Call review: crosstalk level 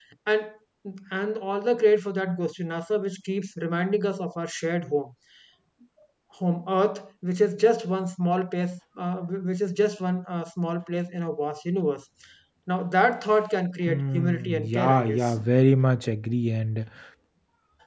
present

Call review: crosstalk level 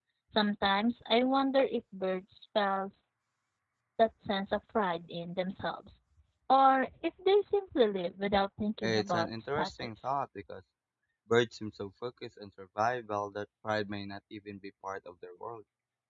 present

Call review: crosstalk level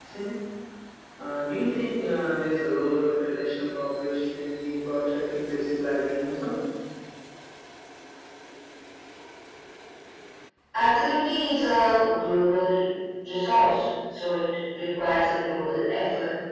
none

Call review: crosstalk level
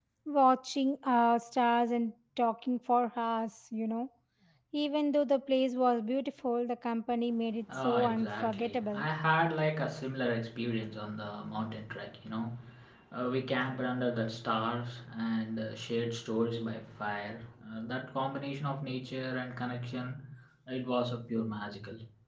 present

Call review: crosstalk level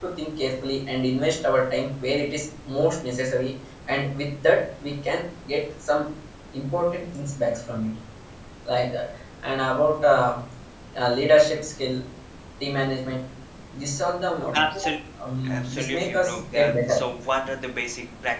present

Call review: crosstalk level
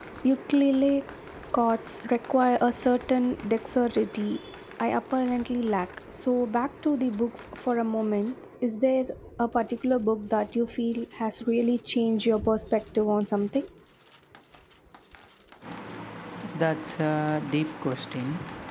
none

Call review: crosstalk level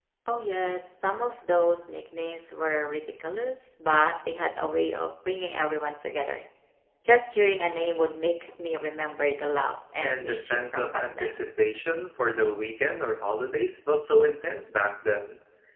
present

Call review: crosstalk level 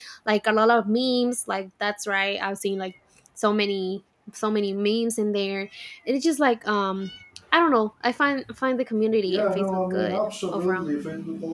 present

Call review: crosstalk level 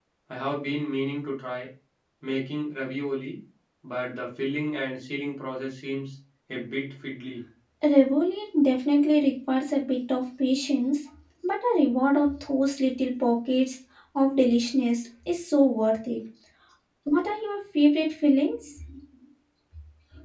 none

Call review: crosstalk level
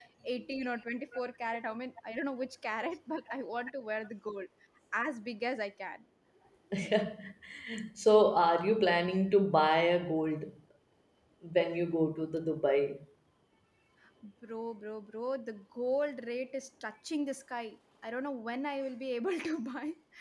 none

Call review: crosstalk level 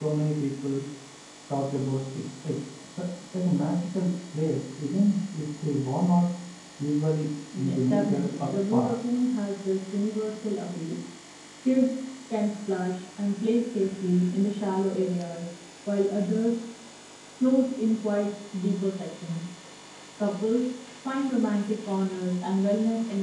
present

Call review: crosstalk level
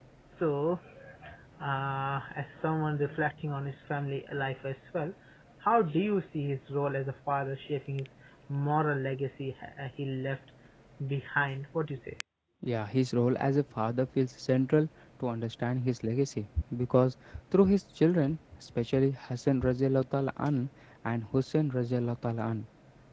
none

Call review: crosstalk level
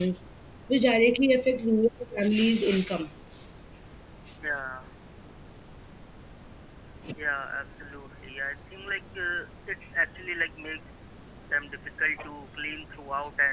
none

